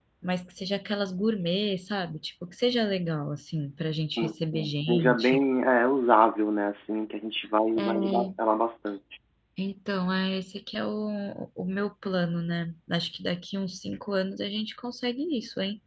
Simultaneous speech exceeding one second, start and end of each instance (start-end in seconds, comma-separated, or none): 4.2-5.4